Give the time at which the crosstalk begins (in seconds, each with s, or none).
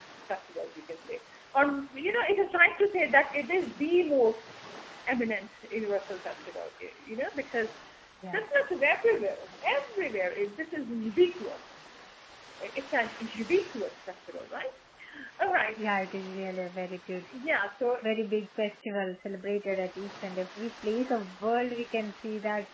none